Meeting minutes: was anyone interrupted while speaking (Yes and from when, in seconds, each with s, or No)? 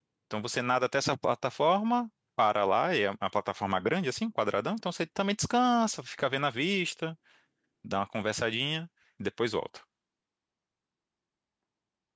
No